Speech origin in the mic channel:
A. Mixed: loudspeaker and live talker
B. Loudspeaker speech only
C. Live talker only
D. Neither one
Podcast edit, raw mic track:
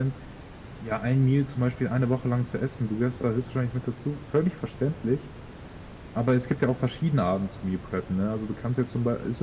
C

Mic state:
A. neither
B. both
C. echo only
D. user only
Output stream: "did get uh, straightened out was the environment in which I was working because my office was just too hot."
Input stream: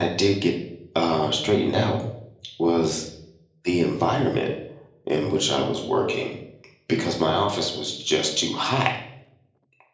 C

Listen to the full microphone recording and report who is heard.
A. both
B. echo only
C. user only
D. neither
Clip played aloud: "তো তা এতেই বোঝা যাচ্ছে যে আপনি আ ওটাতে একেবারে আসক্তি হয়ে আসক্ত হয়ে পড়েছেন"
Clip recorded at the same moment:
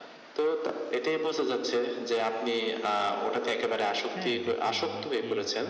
A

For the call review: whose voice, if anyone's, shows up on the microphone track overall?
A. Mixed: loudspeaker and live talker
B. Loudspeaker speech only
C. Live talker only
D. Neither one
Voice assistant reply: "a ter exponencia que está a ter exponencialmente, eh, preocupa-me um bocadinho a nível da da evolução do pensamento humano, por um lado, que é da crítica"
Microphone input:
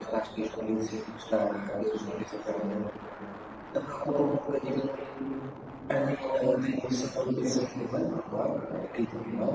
B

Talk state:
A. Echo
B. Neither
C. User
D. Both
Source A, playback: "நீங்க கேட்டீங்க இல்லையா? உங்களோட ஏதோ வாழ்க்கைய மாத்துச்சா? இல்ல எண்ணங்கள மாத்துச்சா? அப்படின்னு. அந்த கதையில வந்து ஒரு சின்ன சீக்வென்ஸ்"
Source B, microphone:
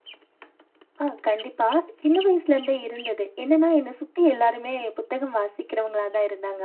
C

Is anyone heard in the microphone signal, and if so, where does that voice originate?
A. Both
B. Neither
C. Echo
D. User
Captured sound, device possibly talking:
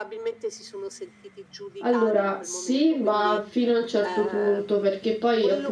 A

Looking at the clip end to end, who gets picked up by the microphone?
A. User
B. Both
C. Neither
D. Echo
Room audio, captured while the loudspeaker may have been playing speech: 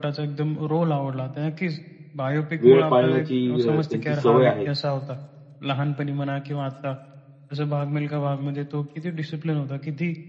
B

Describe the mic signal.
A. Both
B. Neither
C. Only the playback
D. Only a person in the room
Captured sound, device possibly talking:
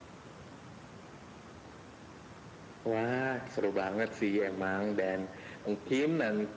C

